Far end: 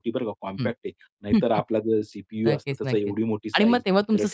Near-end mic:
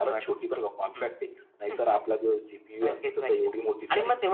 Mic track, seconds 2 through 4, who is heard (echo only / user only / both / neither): echo only